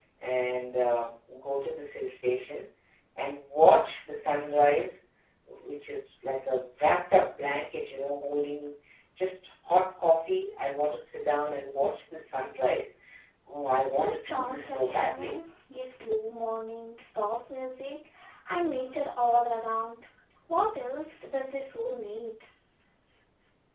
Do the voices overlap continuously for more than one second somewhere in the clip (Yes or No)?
Yes